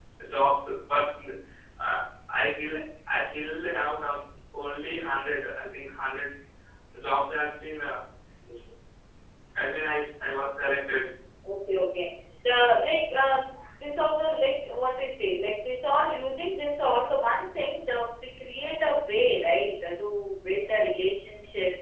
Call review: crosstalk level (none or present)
none